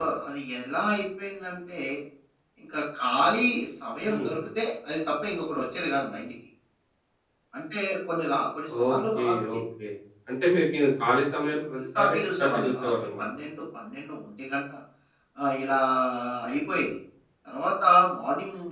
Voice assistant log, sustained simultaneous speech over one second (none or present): present